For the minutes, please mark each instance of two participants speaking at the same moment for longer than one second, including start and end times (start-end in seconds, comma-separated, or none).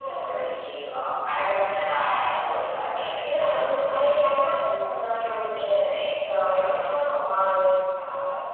3.2-4.4